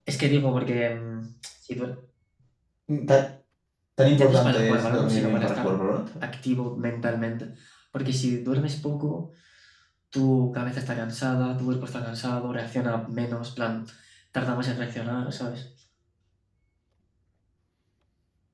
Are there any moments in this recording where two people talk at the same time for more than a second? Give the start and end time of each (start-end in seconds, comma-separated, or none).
4.1-5.7